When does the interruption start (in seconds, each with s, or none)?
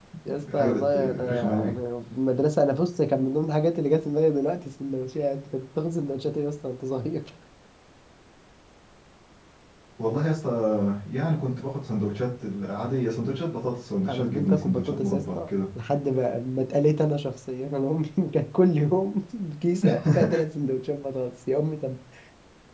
0.5 s